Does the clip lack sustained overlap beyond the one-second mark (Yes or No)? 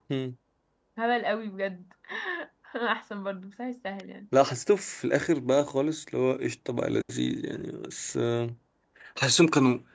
Yes